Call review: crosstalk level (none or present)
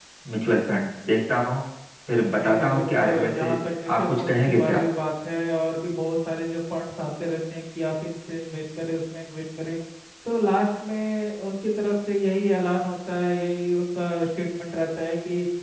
present